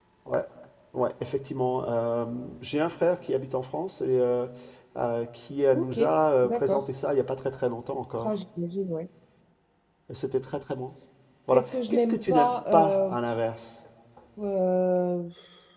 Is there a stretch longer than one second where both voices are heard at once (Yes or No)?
Yes